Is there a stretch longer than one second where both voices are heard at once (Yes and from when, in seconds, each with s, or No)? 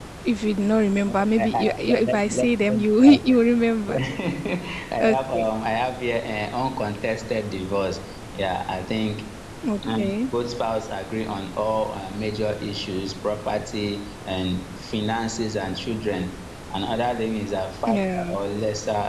Yes, from 1.1 s